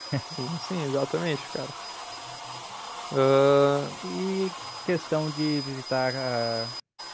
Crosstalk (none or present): none